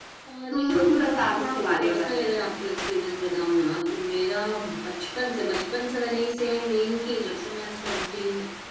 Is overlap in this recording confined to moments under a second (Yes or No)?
No